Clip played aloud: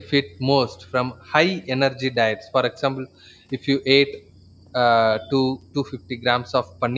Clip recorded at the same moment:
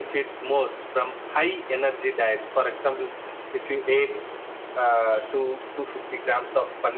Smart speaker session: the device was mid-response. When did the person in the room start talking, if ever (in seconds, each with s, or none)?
none